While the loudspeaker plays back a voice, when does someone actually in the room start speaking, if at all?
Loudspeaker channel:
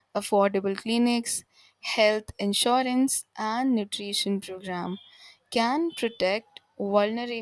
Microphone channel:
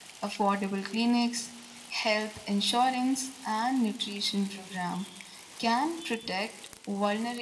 none

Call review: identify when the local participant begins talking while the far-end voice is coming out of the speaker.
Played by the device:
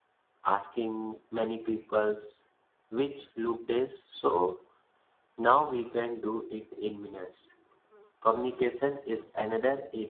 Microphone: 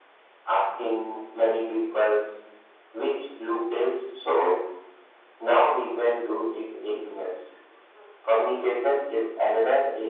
none

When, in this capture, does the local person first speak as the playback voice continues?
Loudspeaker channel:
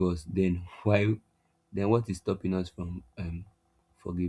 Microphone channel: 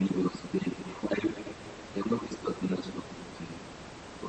none

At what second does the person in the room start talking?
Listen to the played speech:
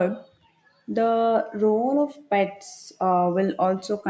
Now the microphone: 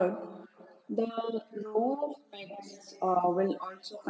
none

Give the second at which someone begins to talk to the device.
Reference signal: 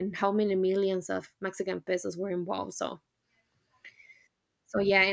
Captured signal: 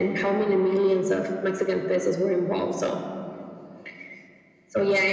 none

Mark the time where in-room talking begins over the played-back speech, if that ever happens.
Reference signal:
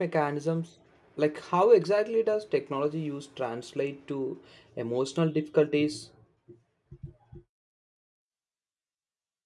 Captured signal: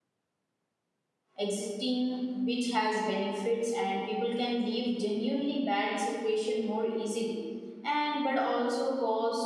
1.4 s

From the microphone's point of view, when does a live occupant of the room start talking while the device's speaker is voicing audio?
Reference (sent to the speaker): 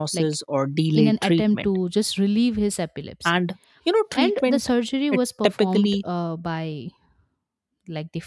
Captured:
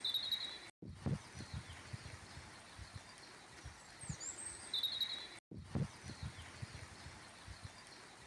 none

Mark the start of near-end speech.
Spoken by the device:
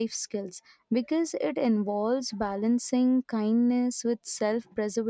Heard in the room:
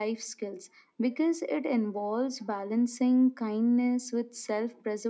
none

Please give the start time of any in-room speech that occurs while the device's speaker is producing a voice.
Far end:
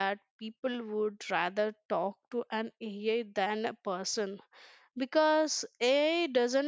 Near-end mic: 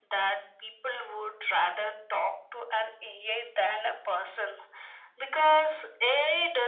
none

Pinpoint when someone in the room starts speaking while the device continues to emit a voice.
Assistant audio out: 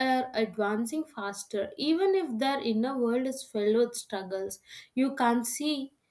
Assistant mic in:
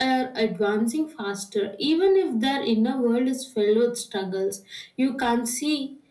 none

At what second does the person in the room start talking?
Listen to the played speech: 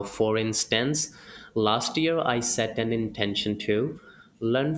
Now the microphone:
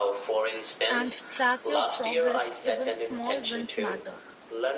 0.9 s

